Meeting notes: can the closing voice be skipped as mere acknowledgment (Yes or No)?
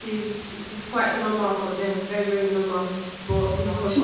No